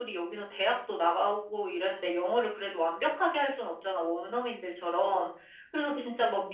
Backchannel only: Yes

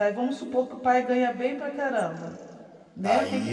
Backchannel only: No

